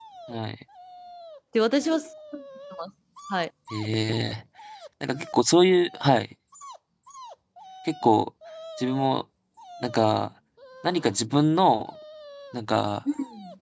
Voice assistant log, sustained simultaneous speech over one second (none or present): none